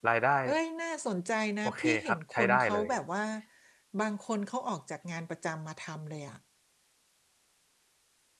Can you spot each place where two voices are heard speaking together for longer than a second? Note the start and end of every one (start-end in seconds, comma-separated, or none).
1.6-2.9